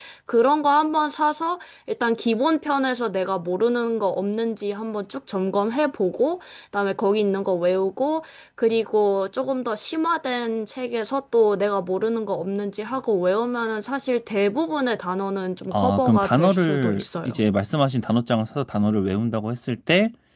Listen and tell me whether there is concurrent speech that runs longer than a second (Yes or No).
Yes